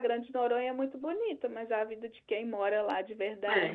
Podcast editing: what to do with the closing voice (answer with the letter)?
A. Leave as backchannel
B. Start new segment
B